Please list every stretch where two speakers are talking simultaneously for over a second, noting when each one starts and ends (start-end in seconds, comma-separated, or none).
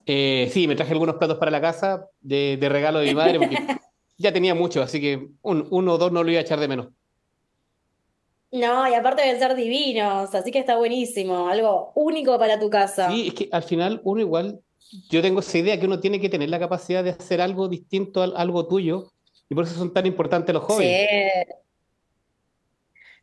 none